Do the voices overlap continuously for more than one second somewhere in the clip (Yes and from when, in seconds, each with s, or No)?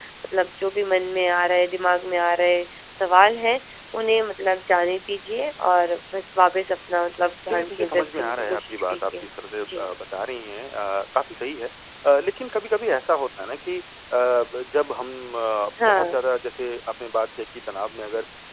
Yes, from 7.5 s